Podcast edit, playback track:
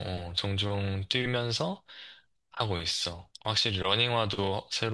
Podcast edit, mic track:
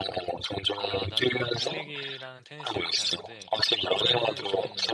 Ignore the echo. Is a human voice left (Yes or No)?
Yes